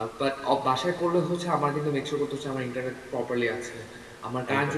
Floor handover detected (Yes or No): No